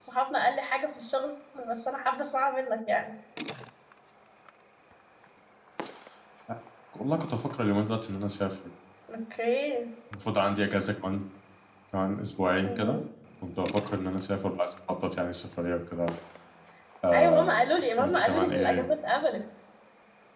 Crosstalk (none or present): present